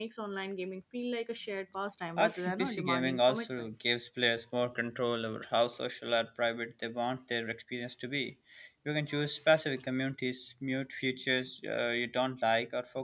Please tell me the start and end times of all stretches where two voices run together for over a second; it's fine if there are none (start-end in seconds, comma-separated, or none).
2.2-3.7